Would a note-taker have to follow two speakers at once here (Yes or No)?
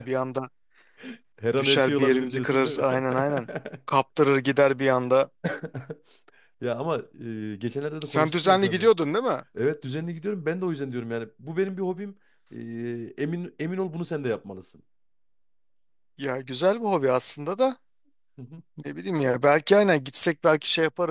Yes